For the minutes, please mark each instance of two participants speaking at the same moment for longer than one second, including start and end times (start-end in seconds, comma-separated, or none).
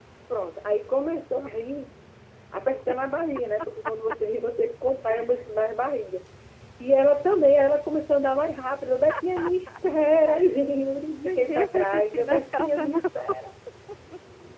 11.1-13.0